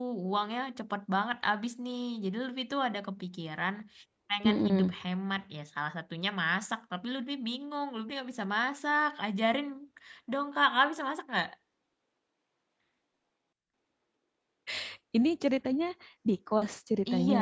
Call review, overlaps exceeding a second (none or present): none